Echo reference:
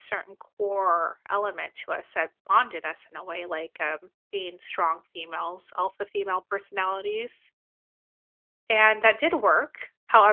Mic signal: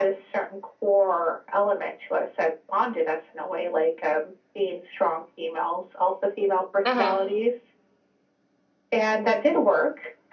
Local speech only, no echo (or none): Mhm.